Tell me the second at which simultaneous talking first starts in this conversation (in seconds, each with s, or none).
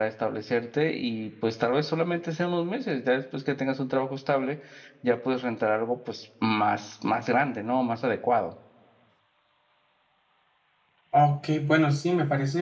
none